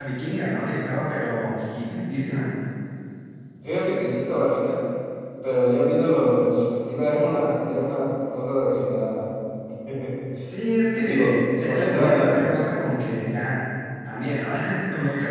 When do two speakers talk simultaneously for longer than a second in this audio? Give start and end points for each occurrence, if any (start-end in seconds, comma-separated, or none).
11.0-12.5